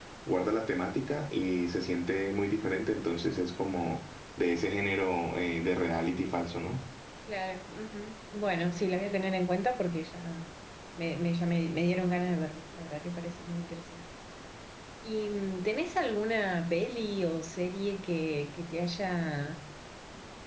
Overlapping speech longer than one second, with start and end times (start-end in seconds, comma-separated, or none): none